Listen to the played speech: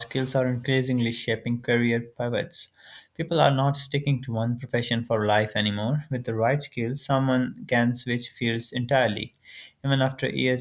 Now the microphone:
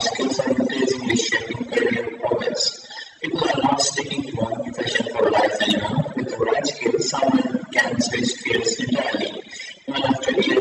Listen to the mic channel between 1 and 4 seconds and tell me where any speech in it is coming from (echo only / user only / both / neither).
echo only